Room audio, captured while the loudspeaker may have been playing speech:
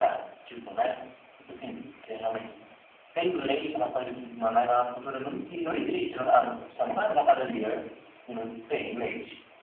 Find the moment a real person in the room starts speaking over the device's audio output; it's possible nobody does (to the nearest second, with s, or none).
none